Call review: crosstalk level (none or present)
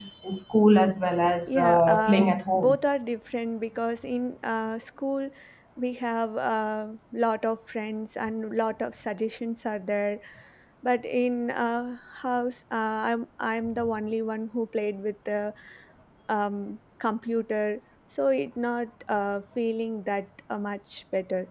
present